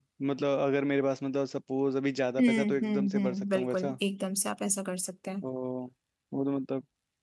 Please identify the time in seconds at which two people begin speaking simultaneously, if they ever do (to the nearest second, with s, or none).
2 s